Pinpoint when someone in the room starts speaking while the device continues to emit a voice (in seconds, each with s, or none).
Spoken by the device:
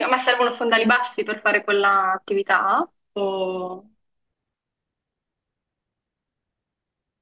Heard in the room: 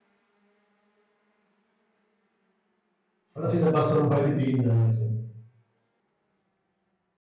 3.3 s